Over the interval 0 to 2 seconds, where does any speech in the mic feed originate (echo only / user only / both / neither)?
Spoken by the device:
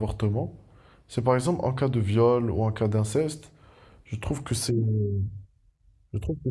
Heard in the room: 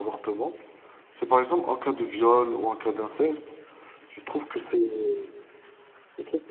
echo only